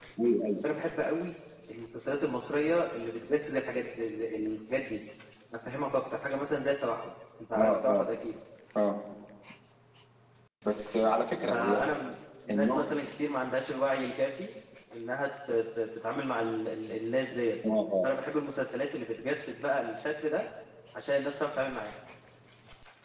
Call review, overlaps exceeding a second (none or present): none